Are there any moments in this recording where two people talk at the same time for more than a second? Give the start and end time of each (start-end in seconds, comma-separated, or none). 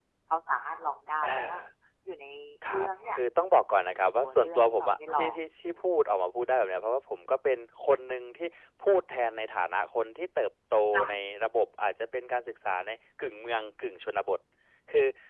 3.7-5.4